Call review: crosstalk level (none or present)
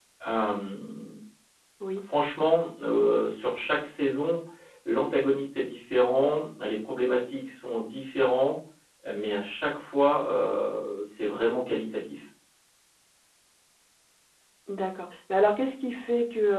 none